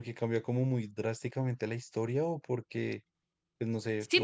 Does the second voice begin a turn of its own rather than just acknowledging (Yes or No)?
Yes